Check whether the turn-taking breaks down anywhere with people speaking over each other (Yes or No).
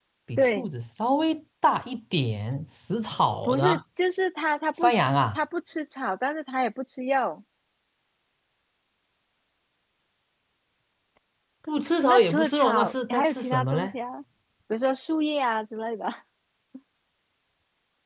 Yes